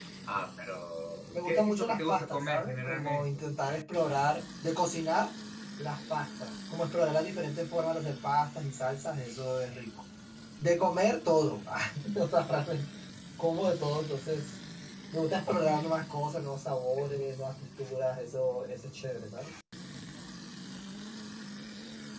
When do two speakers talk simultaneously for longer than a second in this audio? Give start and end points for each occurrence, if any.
1.3-3.4

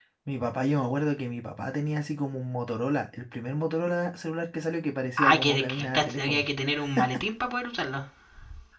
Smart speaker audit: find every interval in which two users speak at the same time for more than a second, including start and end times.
5.2-6.5

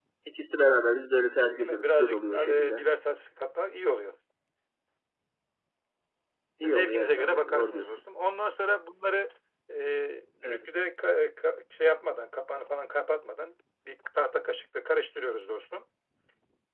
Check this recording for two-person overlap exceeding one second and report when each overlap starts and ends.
1.6-2.8, 6.7-8.0

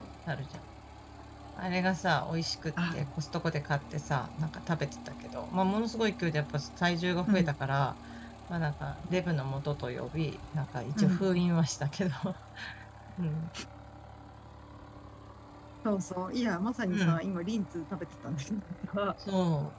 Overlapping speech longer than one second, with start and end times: none

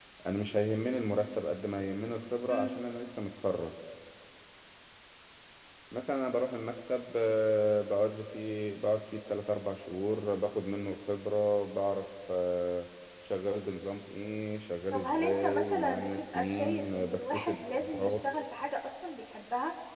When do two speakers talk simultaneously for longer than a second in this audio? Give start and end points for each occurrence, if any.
14.9-18.1

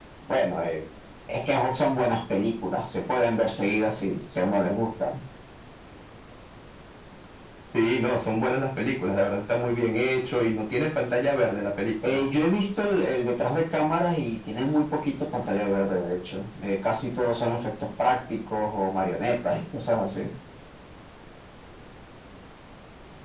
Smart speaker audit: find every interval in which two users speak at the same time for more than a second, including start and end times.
none

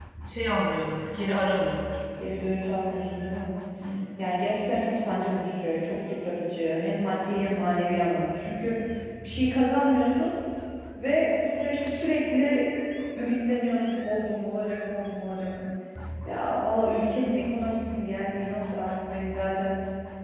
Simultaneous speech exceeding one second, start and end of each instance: none

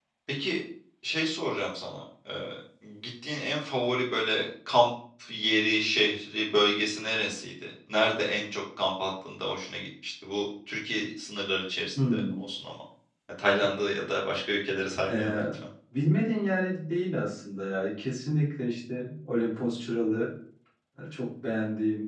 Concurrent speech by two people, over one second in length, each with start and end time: none

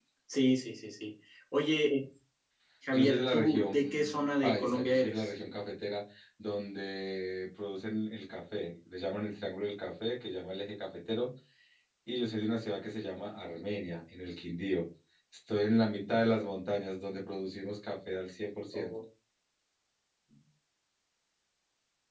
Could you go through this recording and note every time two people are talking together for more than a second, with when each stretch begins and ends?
2.9-5.3

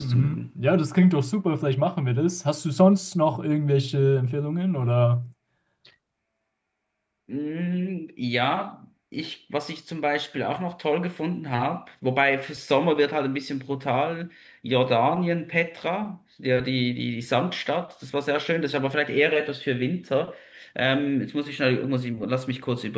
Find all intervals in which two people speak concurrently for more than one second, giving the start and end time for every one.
none

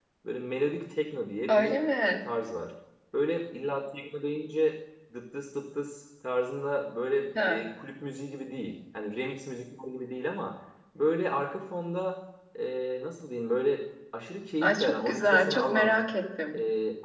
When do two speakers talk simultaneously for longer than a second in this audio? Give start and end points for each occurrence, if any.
14.6-16.0

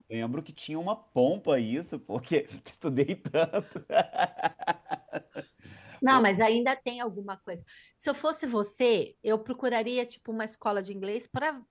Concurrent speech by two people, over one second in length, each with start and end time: none

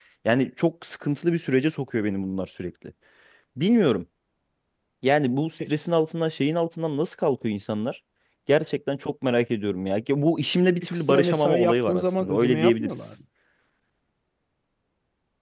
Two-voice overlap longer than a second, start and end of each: 10.9-13.1

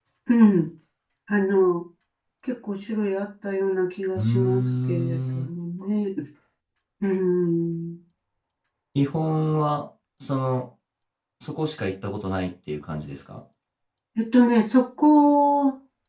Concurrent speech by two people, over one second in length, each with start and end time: 4.2-5.5

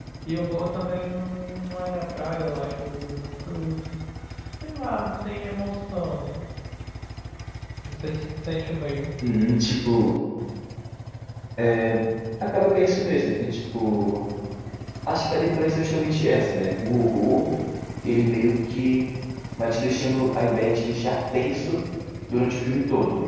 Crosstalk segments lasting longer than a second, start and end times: none

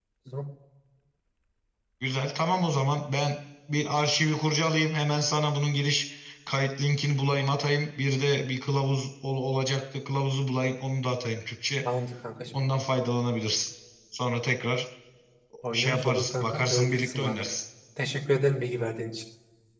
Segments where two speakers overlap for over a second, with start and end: 15.7-17.4

